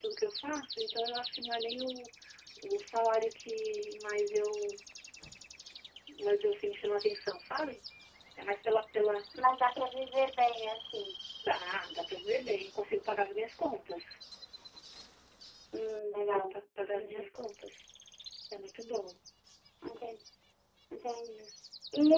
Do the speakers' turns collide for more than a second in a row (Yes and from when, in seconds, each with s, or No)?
No